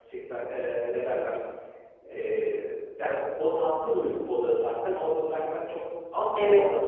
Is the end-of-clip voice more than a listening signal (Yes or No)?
No